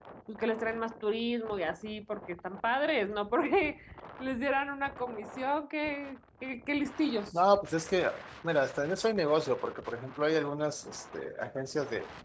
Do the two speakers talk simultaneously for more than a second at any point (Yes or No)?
No